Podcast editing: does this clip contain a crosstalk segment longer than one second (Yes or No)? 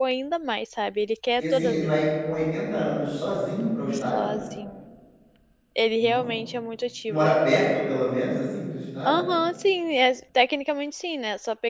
No